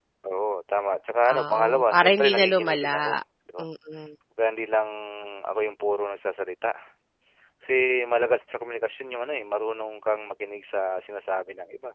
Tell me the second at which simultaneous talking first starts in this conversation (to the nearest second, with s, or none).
1 s